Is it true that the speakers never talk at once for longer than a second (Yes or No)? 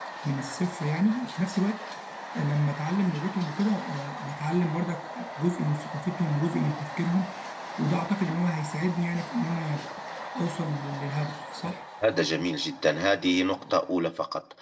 Yes